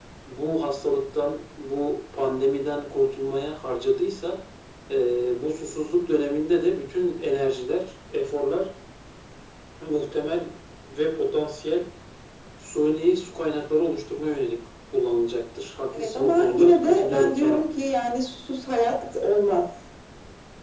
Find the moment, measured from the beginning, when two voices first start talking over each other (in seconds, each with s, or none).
15.9 s